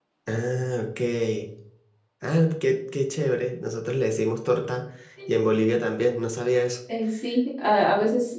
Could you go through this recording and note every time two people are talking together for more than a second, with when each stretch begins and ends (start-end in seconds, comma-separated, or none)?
none